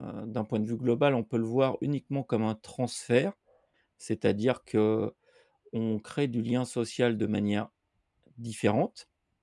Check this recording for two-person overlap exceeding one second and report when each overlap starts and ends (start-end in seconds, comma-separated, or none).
none